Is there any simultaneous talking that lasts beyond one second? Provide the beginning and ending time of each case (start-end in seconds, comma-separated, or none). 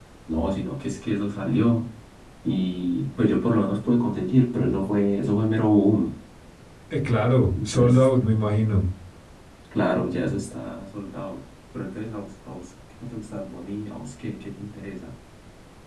none